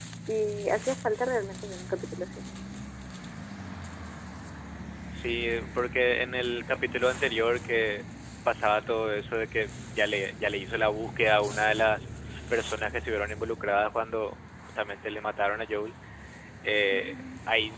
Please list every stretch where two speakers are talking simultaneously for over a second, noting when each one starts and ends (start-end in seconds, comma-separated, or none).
none